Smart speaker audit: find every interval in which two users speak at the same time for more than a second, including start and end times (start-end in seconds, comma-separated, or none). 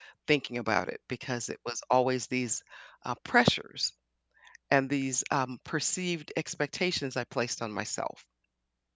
none